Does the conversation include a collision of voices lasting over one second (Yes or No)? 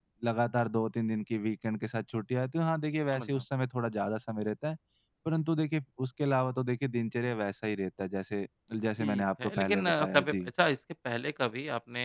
Yes